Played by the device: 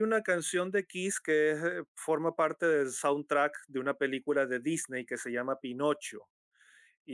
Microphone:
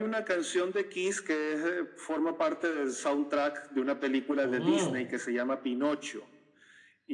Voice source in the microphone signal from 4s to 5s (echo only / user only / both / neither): both